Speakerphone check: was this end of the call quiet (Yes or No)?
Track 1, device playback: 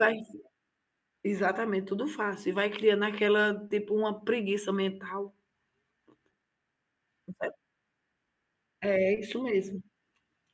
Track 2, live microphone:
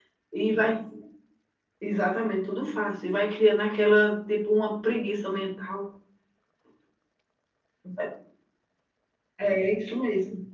Yes